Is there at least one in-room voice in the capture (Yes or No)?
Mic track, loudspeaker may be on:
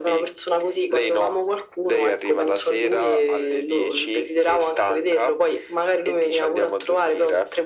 No